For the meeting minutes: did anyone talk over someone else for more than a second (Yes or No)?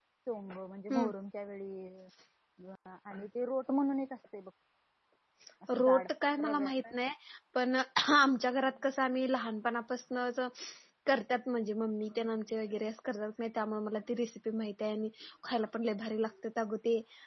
No